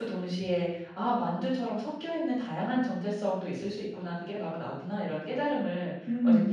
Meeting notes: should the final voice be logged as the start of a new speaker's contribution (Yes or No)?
No